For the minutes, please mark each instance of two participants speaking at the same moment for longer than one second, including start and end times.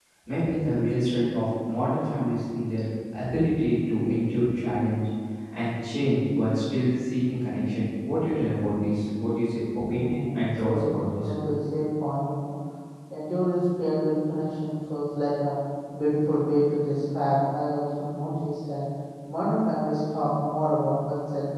9.8-11.3

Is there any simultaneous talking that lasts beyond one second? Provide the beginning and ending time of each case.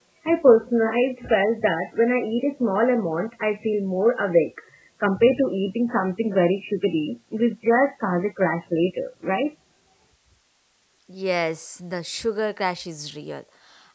none

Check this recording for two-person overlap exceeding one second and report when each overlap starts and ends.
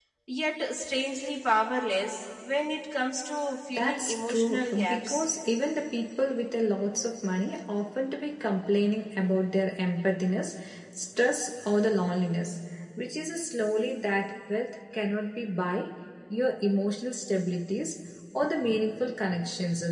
3.8-5.2

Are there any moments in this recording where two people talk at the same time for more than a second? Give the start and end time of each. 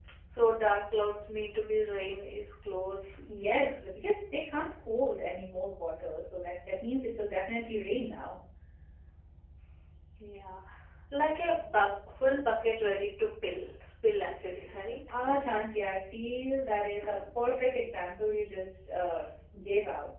none

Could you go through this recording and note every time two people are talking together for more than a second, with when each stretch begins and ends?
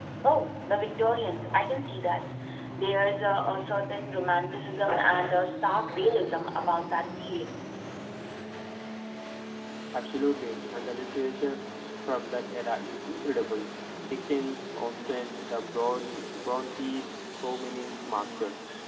none

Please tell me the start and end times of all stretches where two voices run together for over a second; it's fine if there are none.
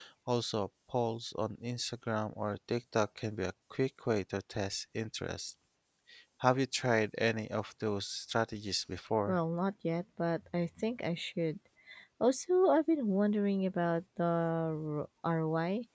none

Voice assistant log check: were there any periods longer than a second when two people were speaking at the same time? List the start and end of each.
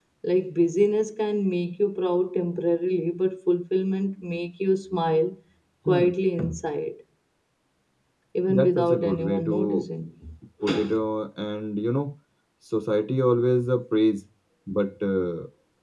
8.5-9.8

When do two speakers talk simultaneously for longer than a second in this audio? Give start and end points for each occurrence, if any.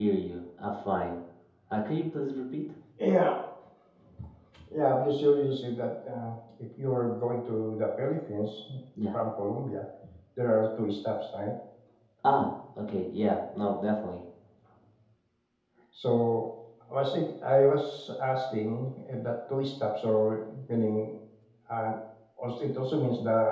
none

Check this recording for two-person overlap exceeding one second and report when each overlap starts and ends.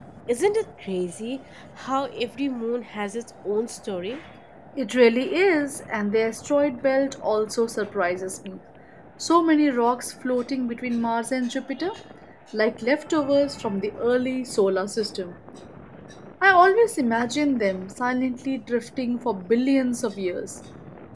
none

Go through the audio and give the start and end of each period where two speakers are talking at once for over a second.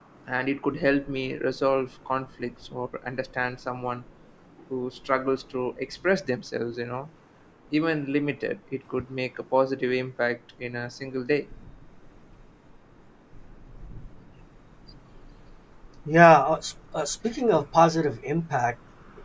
none

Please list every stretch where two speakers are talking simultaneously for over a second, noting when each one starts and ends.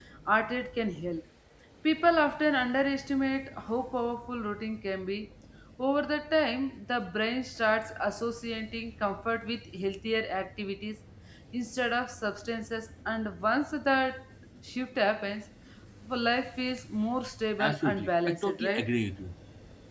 17.6-18.8

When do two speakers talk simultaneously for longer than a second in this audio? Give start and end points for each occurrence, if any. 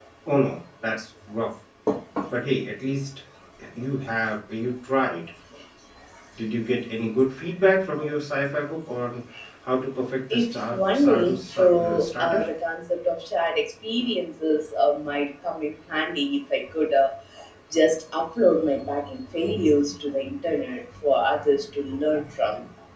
10.3-12.4

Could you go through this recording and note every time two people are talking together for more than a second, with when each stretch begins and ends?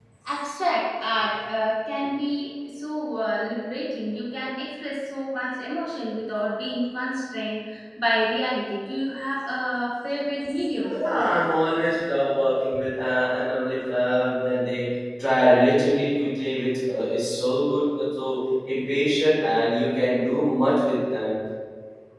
none

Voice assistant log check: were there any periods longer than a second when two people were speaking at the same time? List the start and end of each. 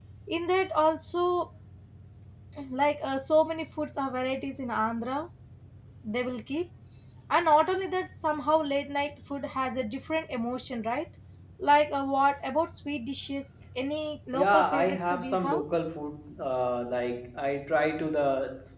14.4-15.6

